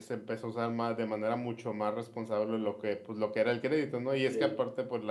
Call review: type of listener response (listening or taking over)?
listening